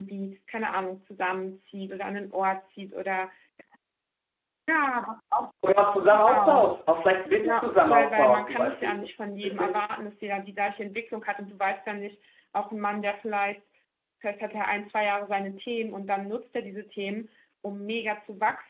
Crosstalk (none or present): present